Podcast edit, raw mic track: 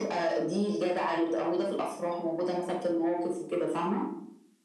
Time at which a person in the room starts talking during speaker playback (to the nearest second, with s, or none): none